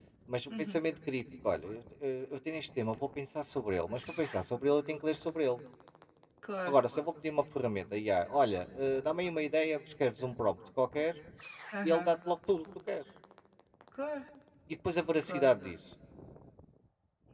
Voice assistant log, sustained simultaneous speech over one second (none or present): none